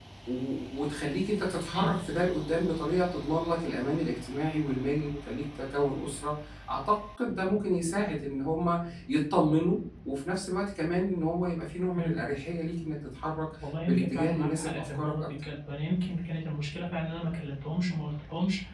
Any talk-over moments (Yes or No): Yes